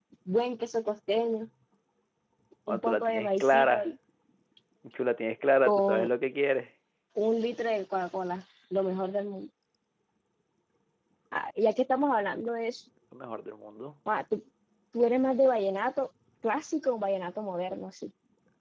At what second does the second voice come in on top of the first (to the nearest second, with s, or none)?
3 s